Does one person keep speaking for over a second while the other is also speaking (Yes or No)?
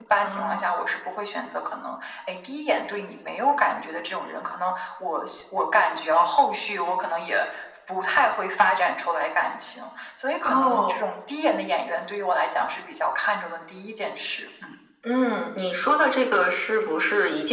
No